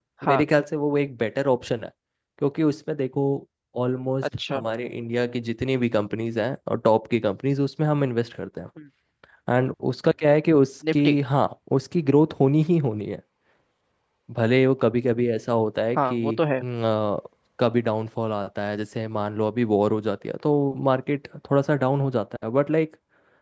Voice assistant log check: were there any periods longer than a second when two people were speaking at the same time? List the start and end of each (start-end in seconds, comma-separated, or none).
none